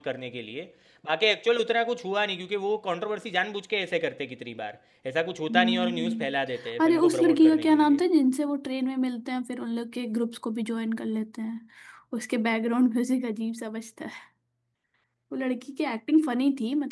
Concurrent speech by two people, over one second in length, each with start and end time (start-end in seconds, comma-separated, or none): 5.5-8.0